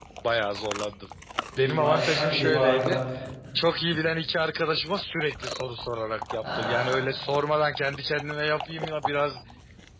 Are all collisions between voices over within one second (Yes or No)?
No